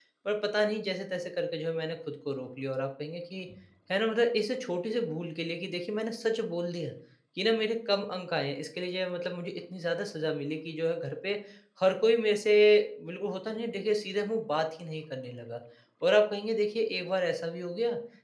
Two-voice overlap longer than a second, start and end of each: none

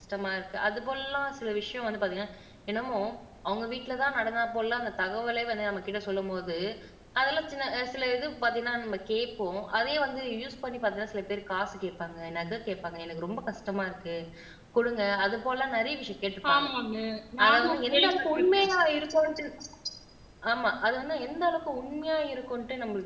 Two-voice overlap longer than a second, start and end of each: 17.4-18.7

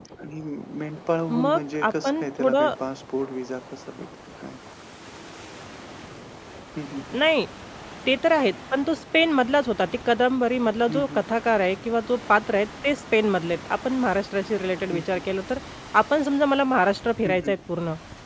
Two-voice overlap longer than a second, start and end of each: 1.3-2.7

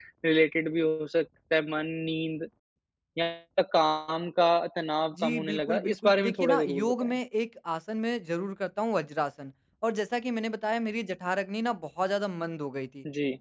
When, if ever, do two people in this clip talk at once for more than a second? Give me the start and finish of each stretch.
5.2-7.1

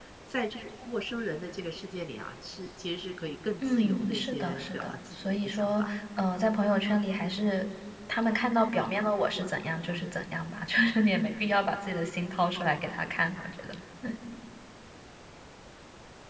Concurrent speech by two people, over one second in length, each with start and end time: 3.6-5.9

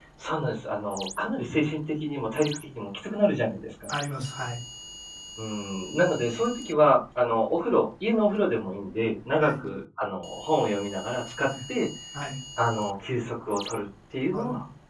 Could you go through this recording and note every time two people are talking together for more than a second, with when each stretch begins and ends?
none

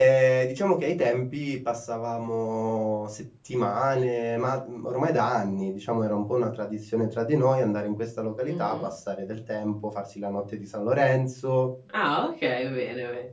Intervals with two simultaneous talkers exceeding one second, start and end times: none

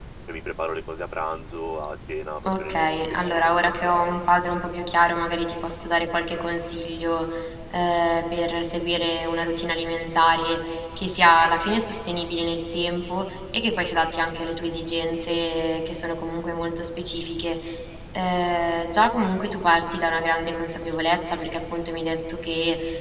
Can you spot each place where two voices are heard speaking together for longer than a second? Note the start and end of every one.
2.5-4.7

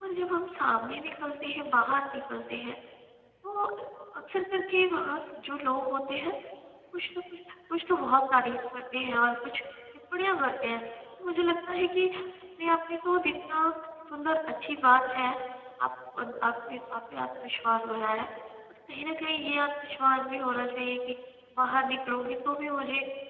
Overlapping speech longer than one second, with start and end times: none

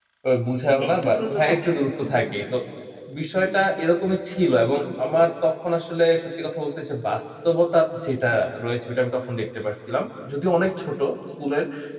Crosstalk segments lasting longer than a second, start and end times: 0.9-2.2

